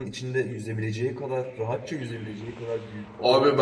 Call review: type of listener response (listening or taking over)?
taking over